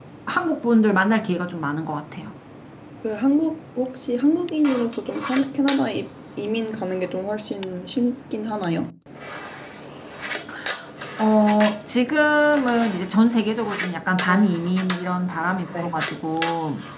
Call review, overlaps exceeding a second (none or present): none